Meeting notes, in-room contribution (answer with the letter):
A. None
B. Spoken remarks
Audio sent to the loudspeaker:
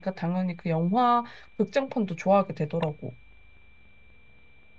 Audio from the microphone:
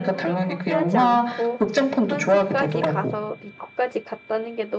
B